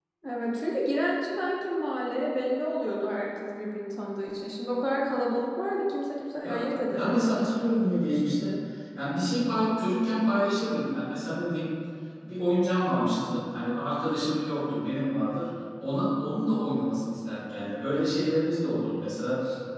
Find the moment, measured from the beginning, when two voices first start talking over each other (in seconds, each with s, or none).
6.4 s